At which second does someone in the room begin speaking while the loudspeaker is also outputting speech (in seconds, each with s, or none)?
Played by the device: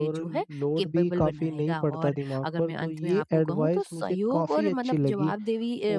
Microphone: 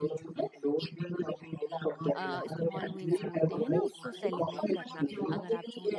2.2 s